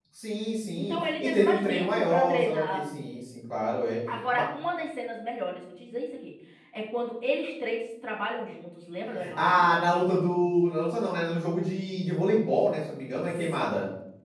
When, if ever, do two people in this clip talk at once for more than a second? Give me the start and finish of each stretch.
0.8-2.8

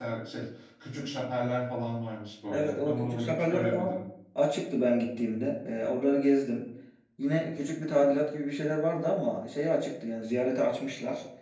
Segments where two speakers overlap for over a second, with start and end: 2.5-4.0

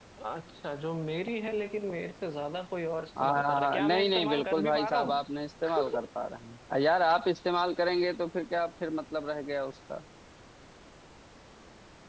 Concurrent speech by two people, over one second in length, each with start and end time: 3.2-5.2

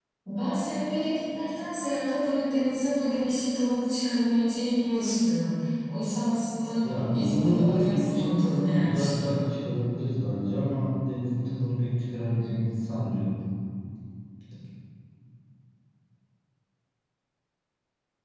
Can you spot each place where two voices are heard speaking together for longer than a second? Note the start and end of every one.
6.8-9.3

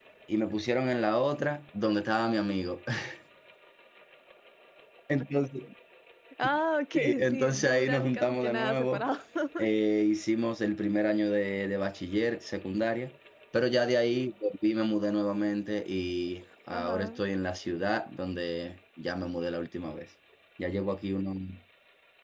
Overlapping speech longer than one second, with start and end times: 6.9-9.0

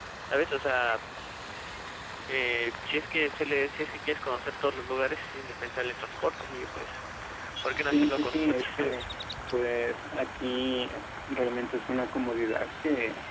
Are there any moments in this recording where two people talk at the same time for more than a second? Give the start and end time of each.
7.8-9.1

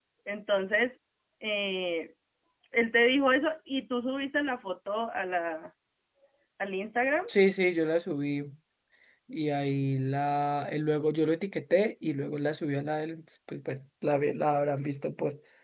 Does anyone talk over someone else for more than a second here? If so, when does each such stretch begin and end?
none

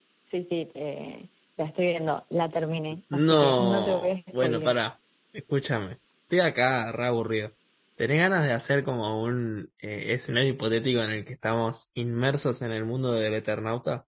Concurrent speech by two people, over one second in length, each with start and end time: 3.1-4.8

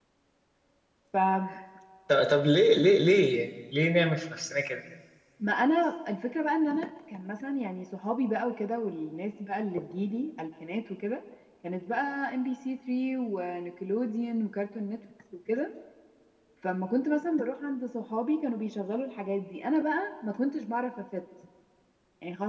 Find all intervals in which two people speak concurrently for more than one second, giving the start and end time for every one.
none

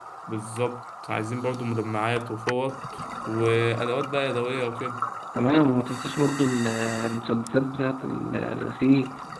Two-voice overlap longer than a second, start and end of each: none

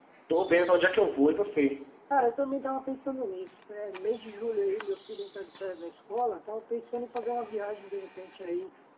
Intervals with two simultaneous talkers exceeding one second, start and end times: none

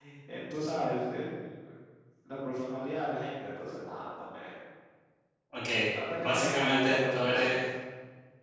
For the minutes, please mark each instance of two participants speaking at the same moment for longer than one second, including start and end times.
6.2-7.5

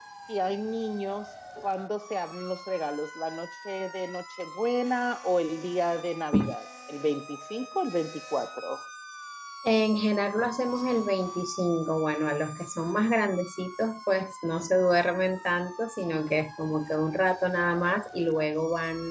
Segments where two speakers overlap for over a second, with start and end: none

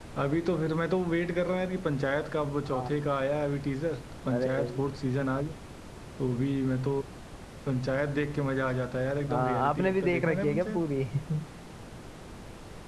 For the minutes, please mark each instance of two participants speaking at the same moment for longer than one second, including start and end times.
9.3-10.8

